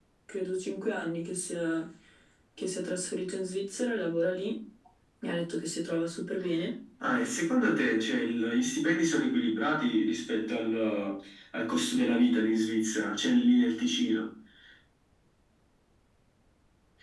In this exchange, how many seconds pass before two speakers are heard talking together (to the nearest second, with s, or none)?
none